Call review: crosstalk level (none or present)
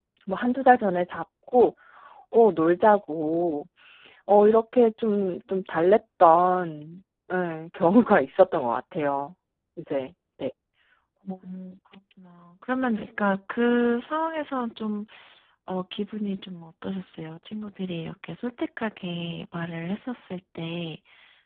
none